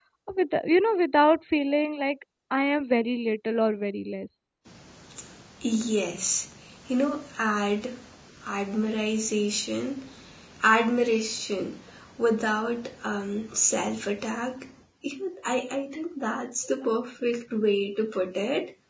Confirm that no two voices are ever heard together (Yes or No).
Yes